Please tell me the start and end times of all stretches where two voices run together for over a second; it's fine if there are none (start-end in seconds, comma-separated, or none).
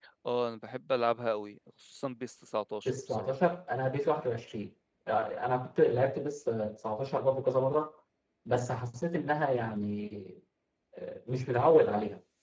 none